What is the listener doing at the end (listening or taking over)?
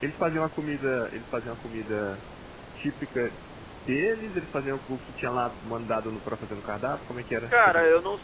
taking over